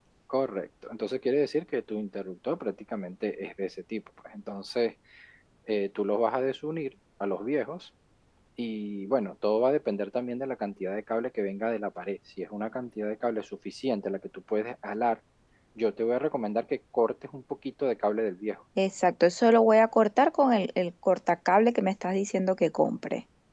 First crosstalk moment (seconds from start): none

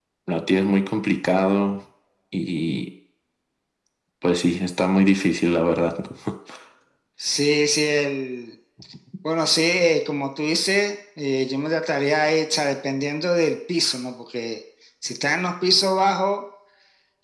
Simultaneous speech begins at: none

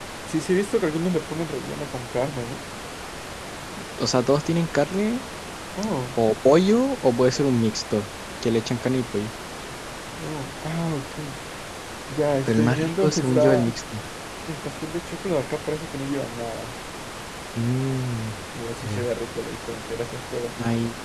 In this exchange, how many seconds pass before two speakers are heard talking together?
12.5 s

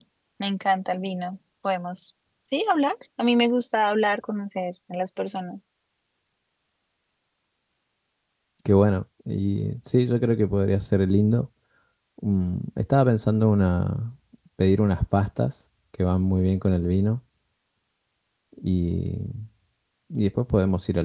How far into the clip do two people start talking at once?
none

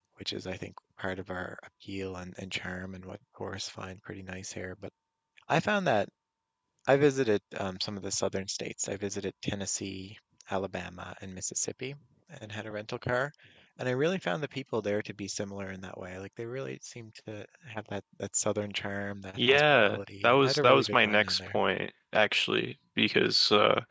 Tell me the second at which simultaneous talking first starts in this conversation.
19.4 s

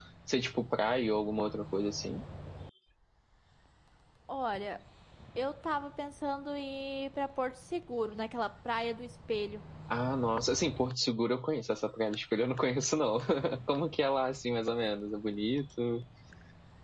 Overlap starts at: none

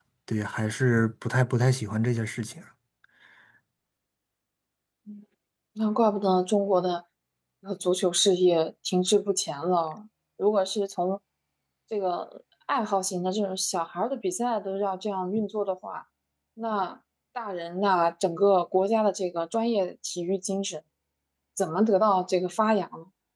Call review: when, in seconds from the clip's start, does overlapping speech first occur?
none

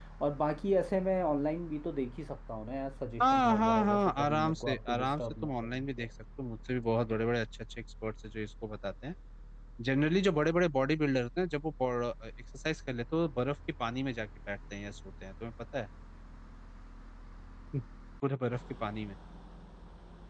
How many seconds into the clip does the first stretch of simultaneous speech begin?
3.2 s

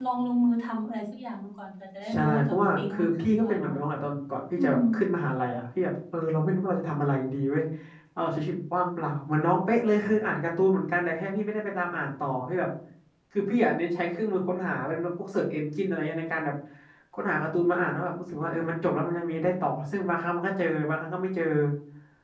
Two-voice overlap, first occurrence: 2.1 s

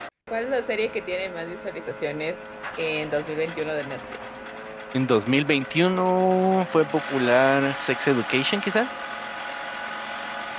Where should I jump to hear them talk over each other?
none

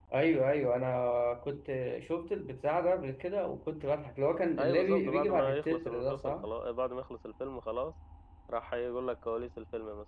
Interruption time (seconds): 4.6 s

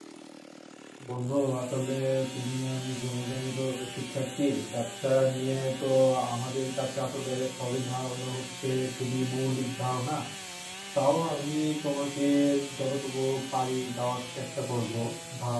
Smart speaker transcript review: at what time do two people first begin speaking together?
none

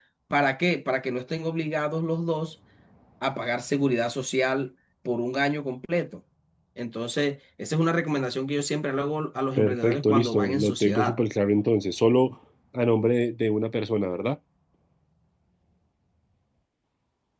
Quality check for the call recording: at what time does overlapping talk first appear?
9.6 s

